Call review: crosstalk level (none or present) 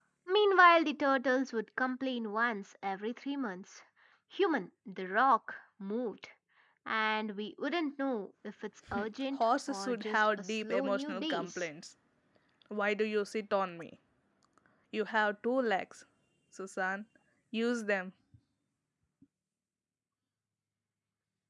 present